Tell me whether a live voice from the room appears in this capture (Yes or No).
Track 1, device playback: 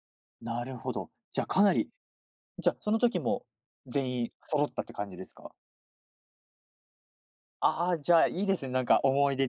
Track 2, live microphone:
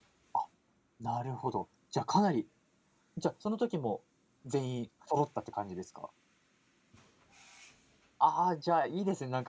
No